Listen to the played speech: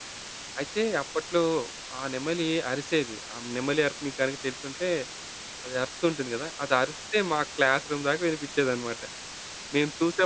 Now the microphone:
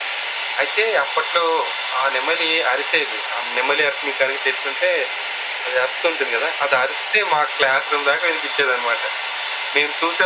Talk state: echo only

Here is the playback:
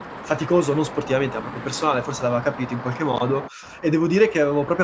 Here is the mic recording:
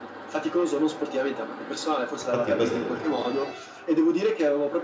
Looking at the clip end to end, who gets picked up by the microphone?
both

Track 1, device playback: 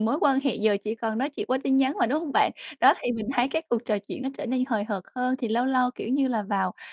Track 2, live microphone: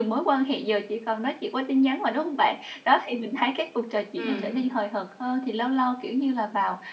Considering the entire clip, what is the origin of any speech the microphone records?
both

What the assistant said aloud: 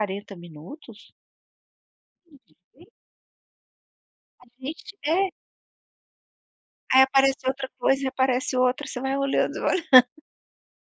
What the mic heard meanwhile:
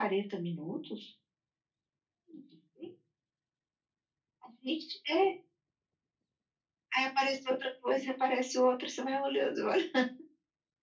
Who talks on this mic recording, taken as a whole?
echo only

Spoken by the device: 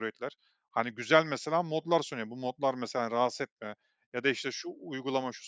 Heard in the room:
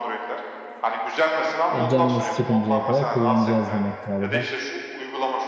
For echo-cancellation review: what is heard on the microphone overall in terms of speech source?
both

